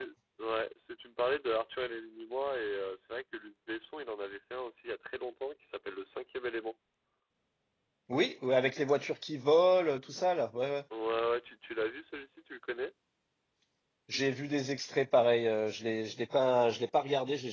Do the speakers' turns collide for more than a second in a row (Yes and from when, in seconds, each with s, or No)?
No